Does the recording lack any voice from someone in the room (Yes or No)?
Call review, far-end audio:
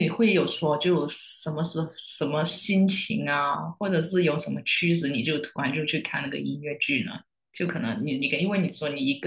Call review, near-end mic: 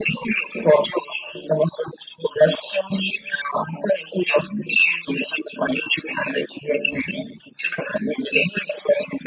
Yes